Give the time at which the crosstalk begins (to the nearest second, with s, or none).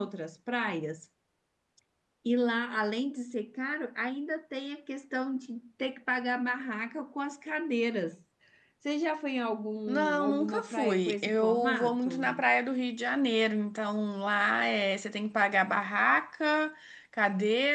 10 s